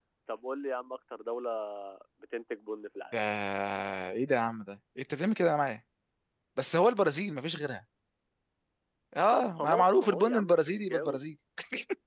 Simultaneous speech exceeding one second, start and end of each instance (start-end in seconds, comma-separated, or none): 9.3-11.2